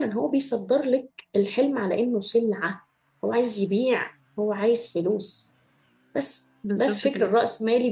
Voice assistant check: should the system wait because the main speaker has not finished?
Yes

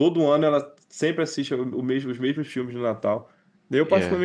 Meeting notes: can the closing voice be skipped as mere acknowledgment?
Yes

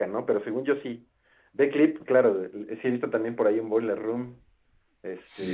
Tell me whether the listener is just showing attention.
No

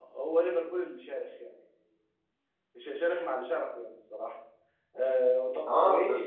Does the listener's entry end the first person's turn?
Yes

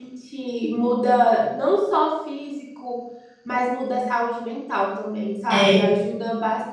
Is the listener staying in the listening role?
Yes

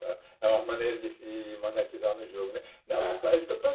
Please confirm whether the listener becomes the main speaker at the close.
No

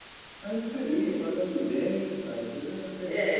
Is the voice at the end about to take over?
Yes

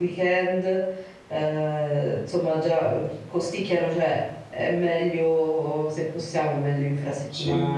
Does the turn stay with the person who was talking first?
No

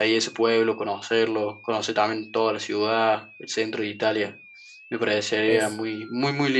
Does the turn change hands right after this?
No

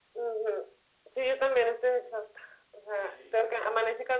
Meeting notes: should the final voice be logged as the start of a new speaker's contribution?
No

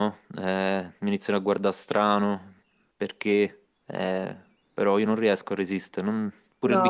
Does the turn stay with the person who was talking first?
No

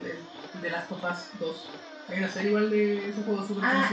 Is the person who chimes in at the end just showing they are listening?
No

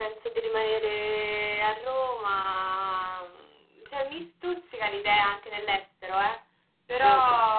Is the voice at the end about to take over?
No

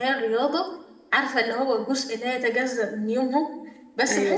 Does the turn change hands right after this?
No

